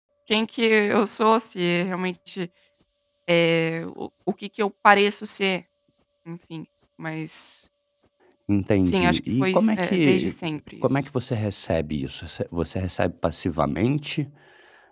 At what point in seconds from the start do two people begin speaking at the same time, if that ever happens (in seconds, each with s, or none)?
8.8 s